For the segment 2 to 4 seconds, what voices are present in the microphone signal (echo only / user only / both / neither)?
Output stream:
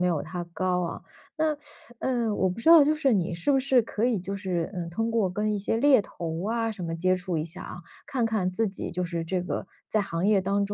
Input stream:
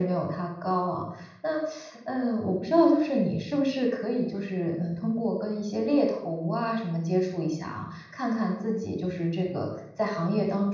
echo only